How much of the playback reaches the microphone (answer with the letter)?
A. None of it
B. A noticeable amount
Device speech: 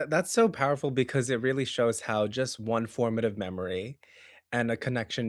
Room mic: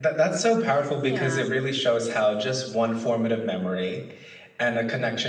B